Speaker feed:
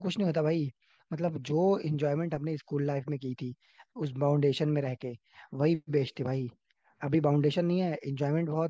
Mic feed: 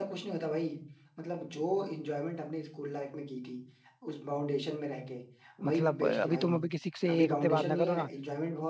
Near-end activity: present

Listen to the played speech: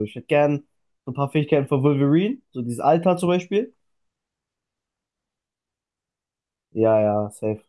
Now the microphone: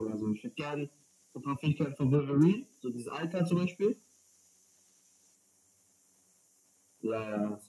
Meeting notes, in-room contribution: none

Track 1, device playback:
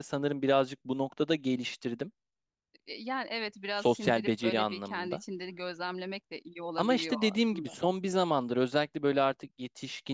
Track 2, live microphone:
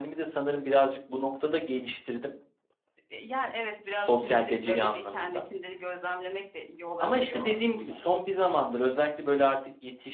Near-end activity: none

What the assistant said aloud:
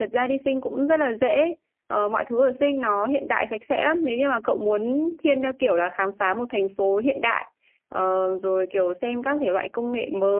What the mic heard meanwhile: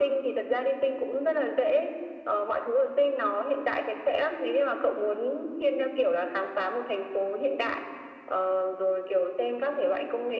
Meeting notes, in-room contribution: none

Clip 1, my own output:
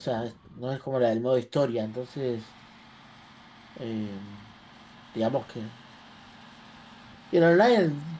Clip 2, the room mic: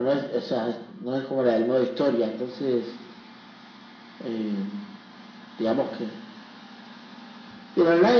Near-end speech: none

